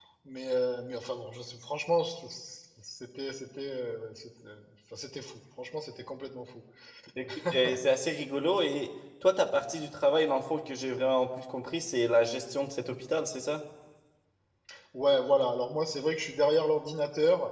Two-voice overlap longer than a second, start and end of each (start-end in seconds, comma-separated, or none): none